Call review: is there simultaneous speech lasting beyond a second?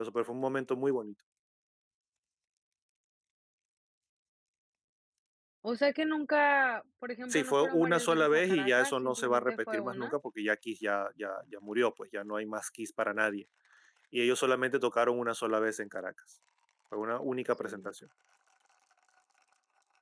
Yes, from 7.3 s

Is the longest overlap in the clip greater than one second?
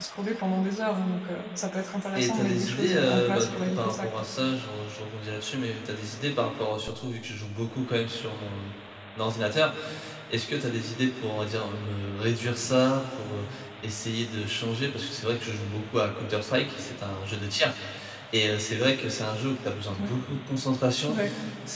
Yes, from 2.1 s

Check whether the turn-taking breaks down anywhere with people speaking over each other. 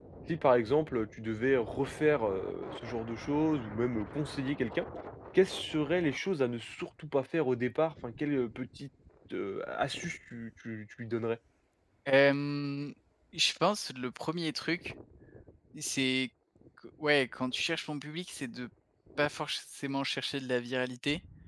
No

